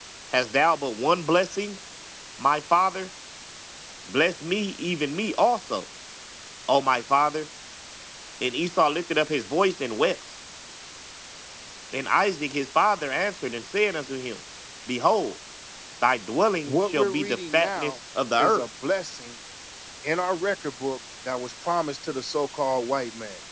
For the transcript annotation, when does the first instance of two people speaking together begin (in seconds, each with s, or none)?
16.7 s